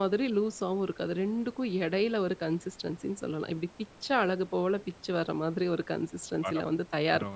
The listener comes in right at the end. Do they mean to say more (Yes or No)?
Yes